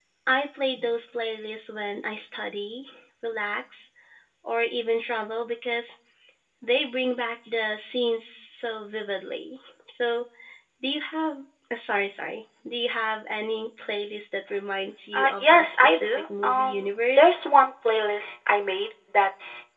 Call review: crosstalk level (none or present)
present